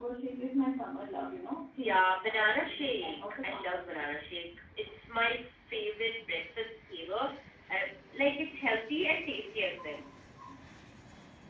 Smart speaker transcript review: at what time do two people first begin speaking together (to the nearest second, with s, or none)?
2 s